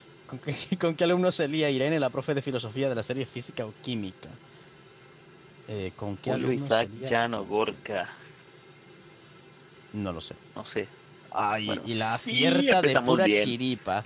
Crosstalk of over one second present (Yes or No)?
Yes